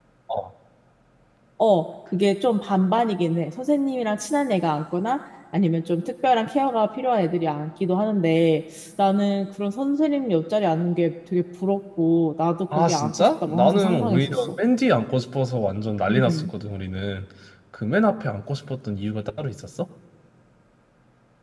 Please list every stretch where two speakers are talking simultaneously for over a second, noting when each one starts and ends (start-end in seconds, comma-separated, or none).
12.8-14.5